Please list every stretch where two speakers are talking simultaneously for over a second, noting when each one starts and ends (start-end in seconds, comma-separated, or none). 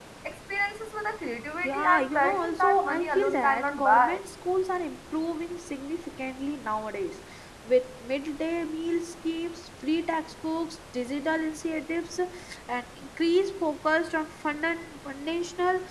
1.6-4.2